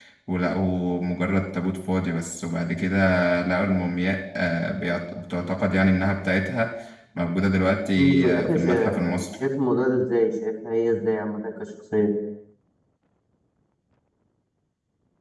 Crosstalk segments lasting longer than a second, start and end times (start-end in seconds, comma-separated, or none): 8.0-9.3